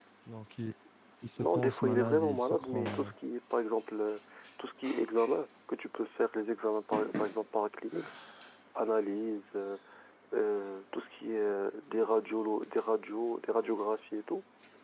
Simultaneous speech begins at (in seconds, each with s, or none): 1.4 s